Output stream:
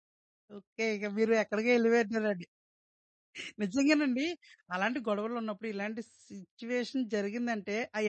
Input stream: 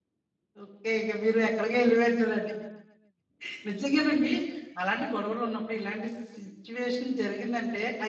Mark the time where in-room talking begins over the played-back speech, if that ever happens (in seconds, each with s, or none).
none